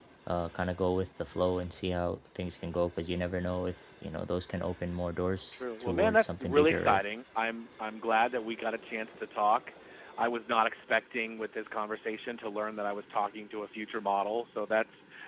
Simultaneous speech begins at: 5.5 s

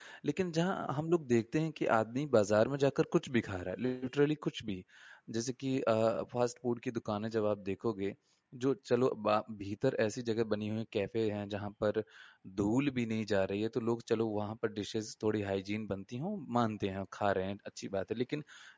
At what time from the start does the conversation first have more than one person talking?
none

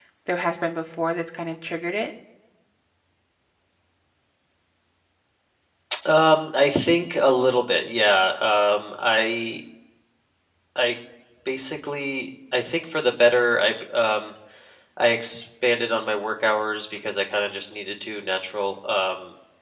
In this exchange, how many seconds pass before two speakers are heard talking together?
none

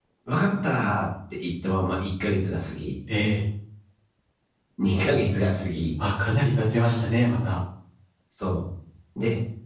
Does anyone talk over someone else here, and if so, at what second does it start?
none

